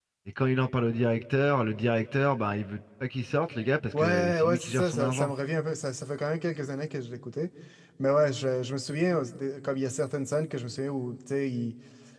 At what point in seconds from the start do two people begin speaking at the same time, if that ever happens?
4 s

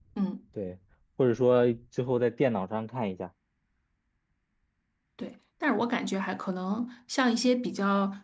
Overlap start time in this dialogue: none

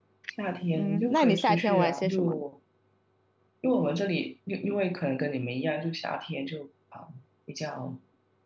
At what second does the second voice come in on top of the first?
1 s

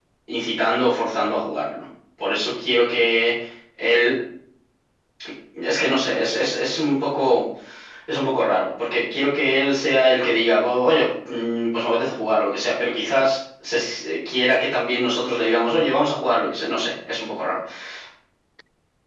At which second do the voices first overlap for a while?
none

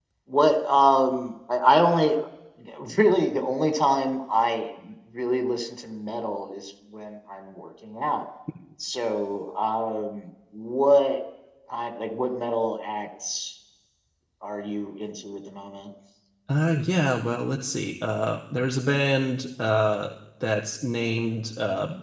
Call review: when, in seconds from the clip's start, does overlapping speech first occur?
none

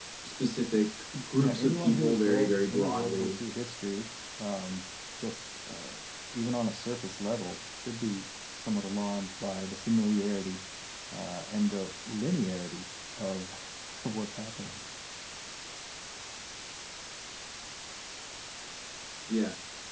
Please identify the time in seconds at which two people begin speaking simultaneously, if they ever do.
1 s

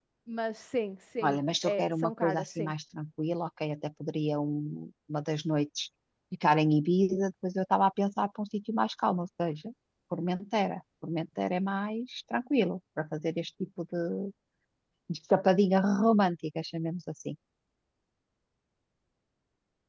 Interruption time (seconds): 1 s

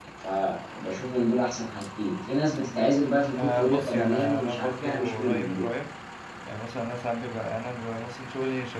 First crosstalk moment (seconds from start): 3 s

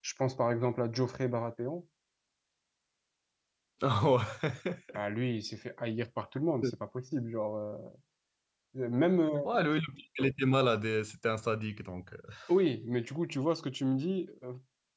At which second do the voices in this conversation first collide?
none

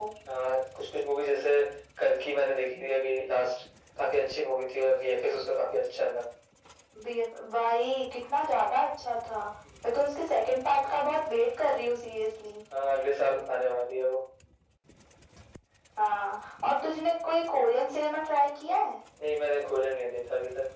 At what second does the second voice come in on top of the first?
none

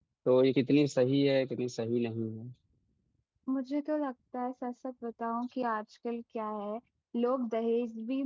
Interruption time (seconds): none

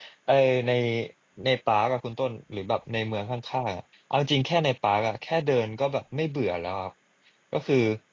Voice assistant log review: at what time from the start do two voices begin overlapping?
none

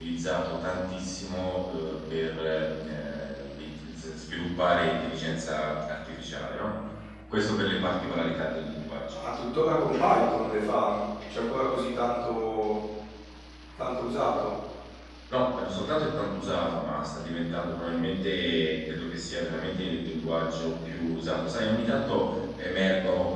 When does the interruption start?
none

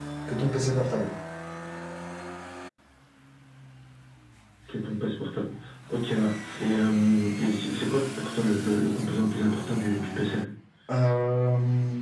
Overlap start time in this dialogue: none

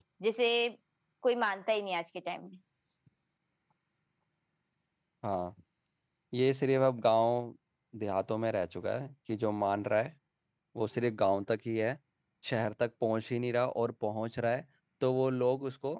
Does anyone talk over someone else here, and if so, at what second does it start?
none

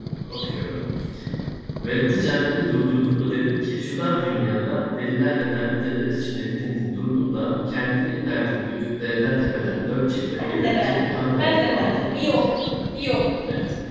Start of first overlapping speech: 10 s

